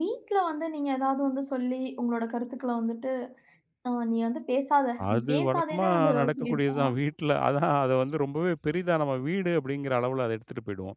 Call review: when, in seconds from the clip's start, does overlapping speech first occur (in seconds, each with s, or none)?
5.0 s